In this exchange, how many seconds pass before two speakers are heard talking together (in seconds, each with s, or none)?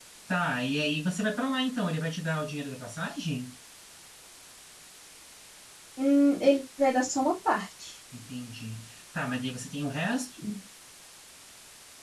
none